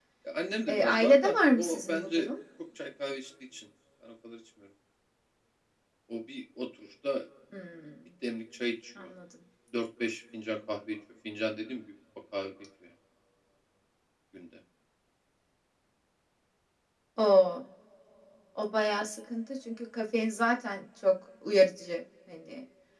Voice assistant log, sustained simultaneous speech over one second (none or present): present